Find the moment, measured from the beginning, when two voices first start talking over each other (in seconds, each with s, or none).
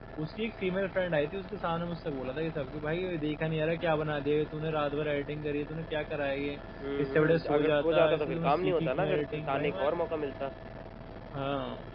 7.0 s